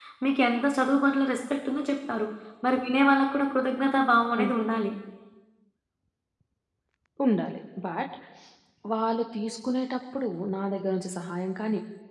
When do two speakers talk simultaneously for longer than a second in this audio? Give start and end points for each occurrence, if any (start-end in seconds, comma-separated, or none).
none